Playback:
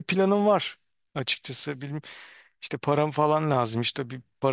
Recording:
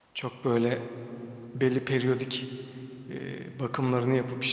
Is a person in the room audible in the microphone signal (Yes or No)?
Yes